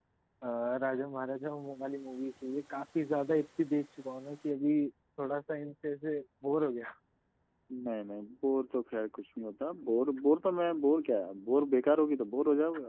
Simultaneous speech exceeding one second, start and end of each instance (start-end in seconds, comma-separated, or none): none